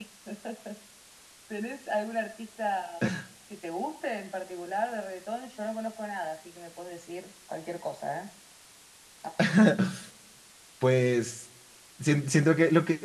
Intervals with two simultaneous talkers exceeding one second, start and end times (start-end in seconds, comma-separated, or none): none